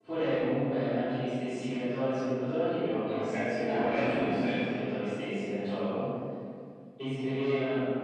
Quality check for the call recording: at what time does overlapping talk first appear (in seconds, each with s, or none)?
3.0 s